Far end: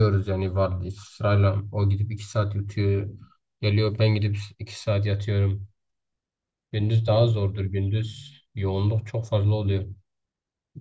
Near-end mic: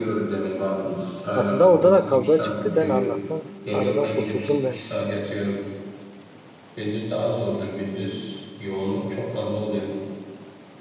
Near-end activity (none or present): present